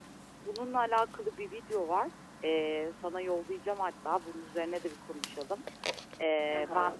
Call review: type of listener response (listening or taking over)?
listening